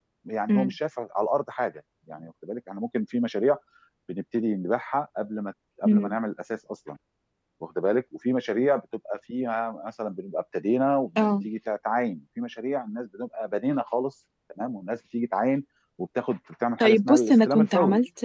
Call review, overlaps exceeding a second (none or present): present